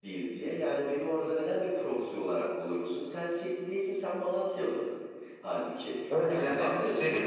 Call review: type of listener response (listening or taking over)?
taking over